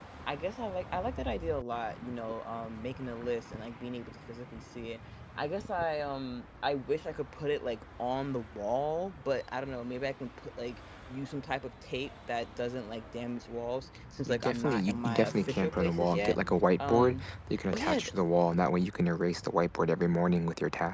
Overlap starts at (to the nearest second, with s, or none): 14 s